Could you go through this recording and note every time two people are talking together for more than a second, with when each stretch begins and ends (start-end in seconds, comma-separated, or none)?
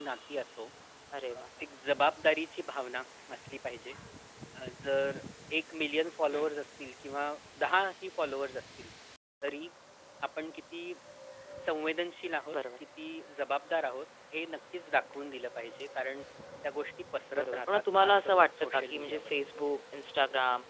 17.4-19.3